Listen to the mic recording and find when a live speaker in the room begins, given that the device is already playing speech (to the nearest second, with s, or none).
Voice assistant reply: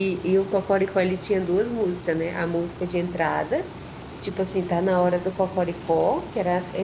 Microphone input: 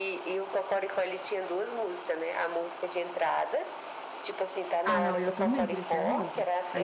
5 s